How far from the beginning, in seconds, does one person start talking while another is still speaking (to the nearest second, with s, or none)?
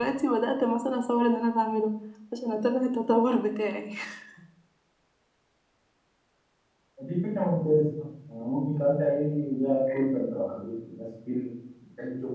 none